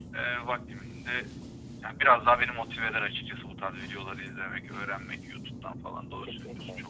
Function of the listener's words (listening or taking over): taking over